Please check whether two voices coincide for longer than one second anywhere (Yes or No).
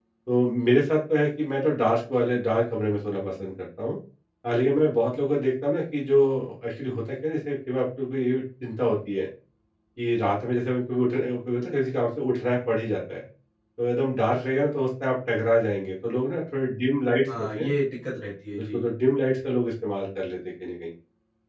No